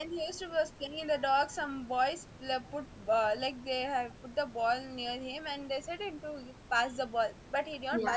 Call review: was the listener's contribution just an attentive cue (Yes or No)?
Yes